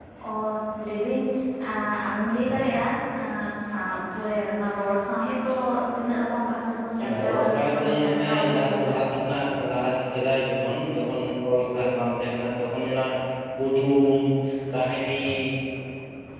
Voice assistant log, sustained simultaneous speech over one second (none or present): present